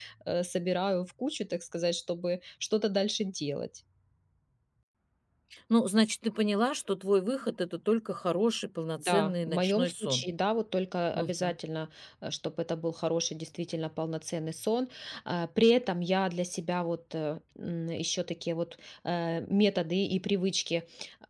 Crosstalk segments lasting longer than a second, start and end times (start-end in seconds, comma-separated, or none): 9.0-10.2